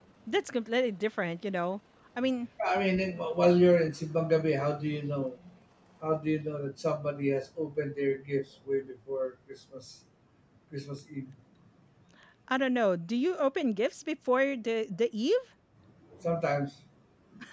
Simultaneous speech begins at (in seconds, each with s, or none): none